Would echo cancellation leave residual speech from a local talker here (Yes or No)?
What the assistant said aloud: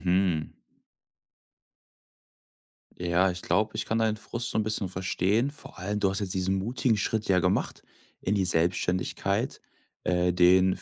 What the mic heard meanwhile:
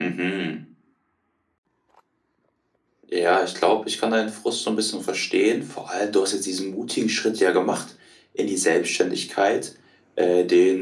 No